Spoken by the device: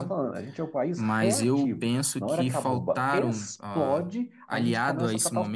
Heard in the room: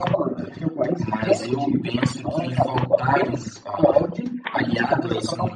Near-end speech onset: none

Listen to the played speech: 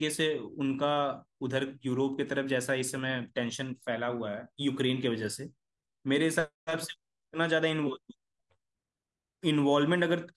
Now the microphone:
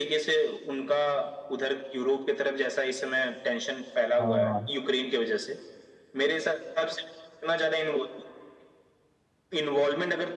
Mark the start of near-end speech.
4.2 s

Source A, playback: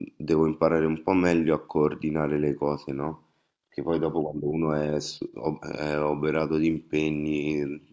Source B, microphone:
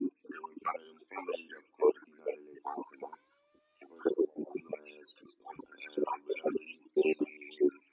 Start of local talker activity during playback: none

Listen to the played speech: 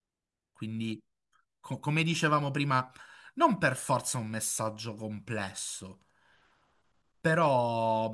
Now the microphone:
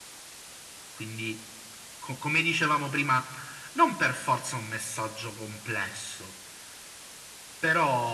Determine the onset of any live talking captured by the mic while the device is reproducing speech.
none

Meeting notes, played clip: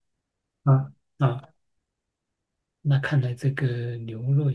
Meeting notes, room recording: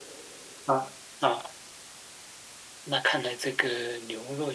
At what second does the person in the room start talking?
none

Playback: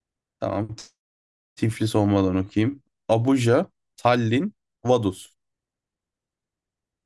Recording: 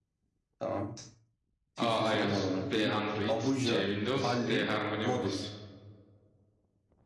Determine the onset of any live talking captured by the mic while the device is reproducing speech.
1.8 s

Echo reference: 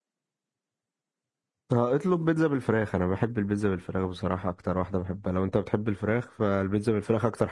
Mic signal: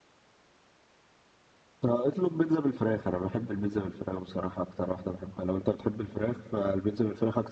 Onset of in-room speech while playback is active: none

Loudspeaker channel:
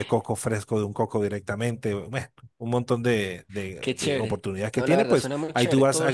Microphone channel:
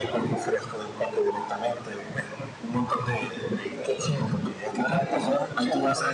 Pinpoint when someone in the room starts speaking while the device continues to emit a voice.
none

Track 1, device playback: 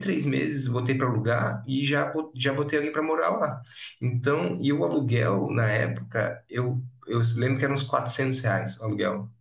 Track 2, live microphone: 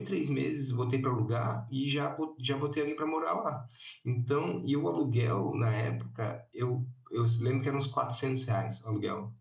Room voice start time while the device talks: none

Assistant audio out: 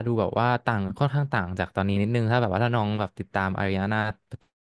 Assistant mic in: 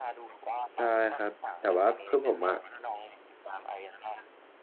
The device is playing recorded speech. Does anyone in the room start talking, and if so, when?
0.7 s

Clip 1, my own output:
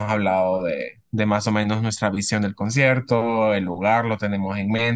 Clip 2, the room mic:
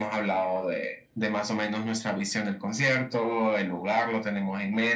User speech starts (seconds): none

